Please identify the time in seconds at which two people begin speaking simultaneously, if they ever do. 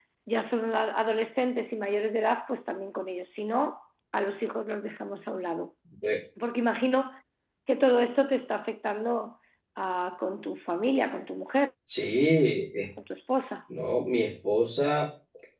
none

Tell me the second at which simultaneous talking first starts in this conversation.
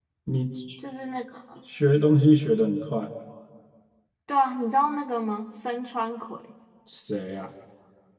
none

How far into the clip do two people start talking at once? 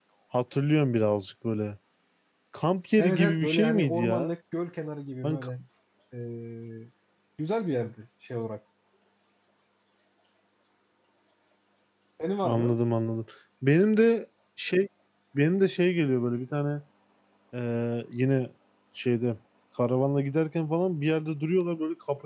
3.0 s

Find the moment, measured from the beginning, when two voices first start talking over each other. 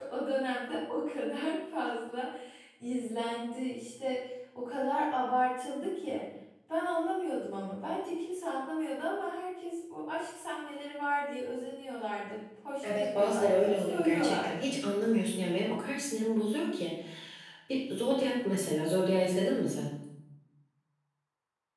12.8 s

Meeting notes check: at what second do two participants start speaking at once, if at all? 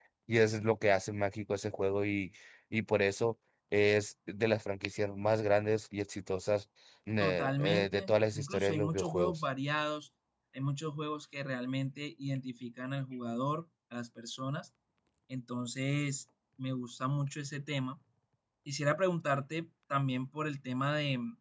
7.2 s

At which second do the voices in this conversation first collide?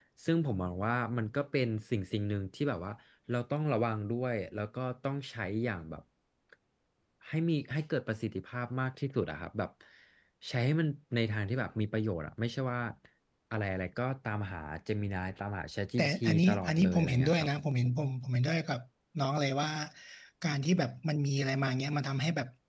16.0 s

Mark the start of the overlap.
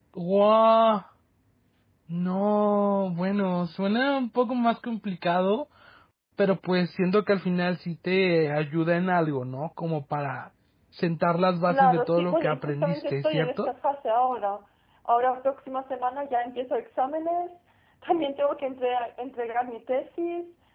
11.6 s

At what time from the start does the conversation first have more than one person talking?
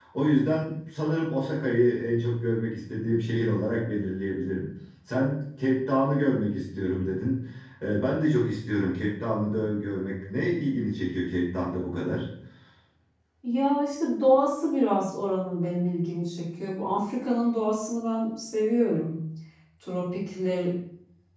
none

